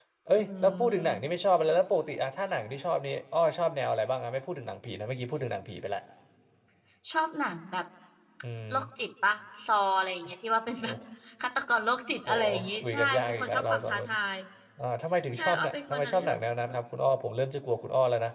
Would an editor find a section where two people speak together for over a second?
Yes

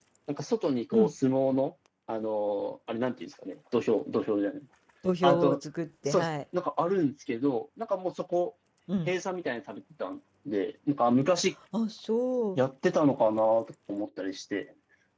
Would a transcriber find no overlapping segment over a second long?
Yes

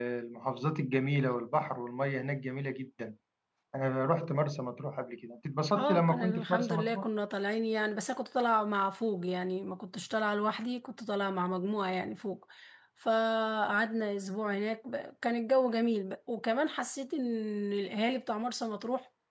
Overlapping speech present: Yes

